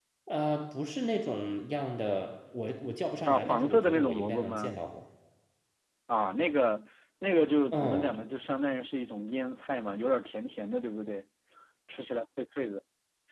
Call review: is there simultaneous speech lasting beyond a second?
Yes, from 3.3 s

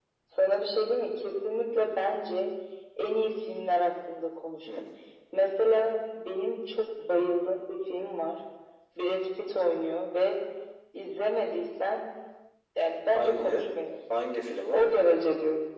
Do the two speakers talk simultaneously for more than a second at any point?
No

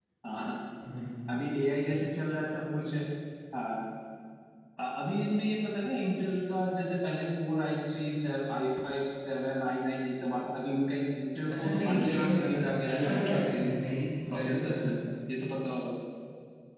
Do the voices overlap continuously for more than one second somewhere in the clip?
Yes, from 11.5 s

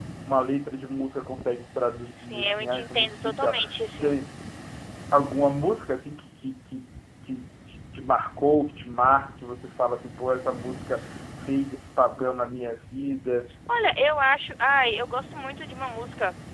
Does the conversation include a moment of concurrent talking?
Yes, from 2.2 s

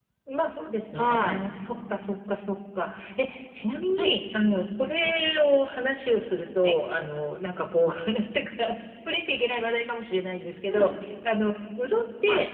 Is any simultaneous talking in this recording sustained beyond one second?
No

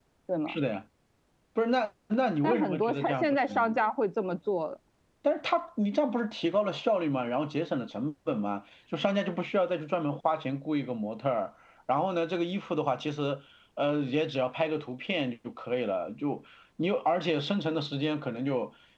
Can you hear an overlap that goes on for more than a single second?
Yes, from 2.4 s

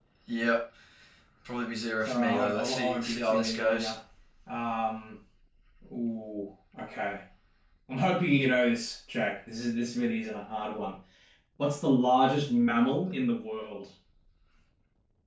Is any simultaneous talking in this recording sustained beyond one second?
Yes, from 2.1 s

